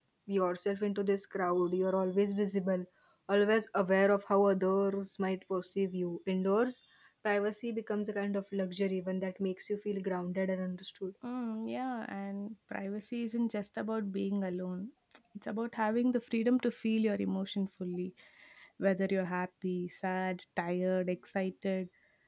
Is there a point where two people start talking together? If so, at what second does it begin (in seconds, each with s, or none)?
none